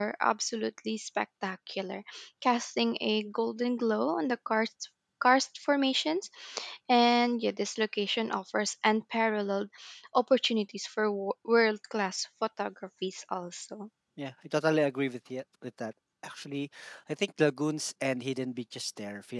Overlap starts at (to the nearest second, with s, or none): none